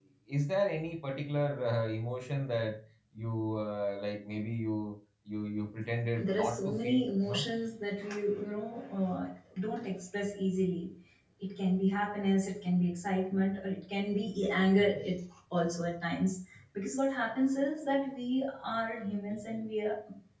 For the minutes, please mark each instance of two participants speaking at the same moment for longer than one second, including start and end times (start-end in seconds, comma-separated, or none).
6.2-7.4